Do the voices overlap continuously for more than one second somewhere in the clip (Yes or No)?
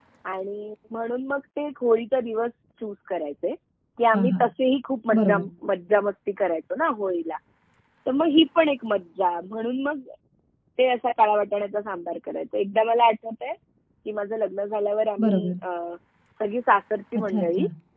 No